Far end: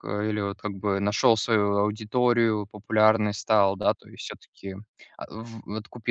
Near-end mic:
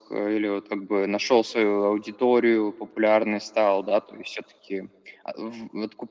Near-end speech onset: none

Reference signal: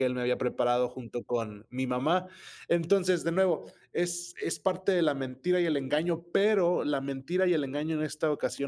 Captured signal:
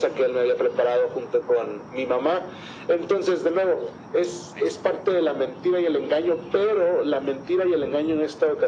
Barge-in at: none

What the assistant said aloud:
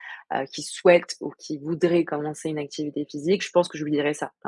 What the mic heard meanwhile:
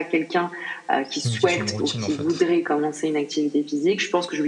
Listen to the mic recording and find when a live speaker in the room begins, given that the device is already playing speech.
1 s

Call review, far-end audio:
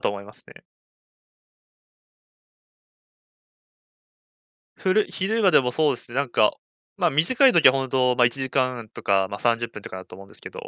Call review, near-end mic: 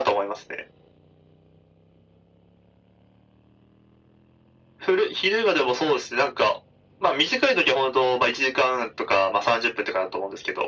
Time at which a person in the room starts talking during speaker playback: none

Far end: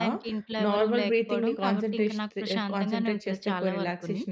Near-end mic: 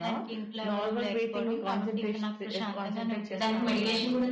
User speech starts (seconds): 3 s

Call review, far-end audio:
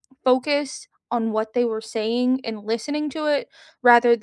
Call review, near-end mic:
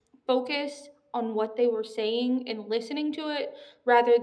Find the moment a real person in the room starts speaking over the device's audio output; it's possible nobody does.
none

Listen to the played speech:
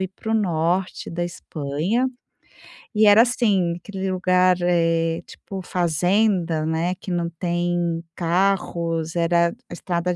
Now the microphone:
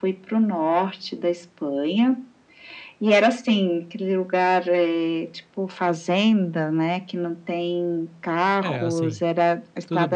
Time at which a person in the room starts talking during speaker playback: 9 s

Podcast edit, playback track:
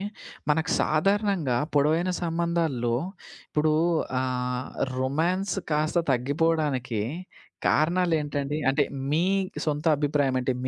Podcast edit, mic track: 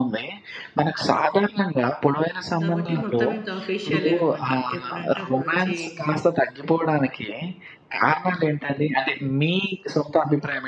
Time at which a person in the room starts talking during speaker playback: 3 s

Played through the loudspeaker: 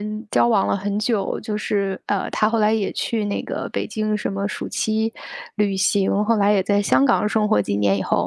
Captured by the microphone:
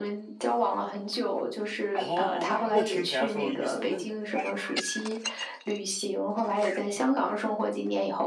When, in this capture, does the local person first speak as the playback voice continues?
2 s

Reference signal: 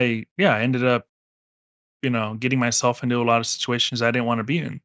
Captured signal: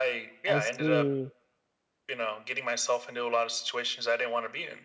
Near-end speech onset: 0 s

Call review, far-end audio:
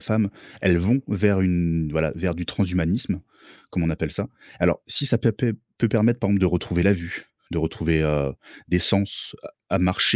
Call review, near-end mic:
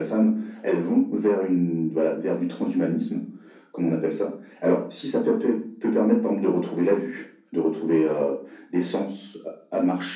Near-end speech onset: none

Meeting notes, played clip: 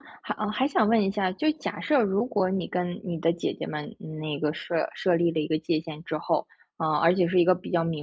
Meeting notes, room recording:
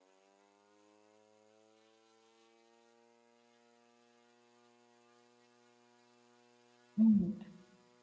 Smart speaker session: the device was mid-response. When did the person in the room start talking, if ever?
7 s

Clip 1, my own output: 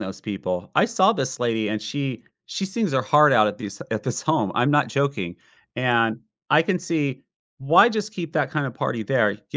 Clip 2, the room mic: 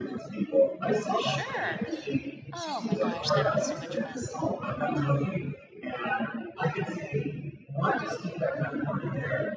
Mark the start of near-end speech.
1 s

